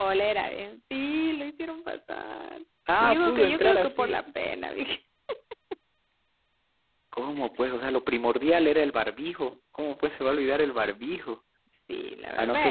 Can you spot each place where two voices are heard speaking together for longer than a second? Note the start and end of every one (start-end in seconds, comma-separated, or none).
3.0-4.2